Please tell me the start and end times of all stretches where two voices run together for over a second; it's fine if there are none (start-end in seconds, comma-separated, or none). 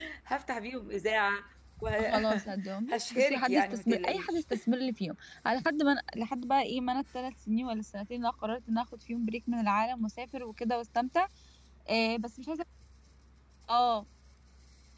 2.0-4.4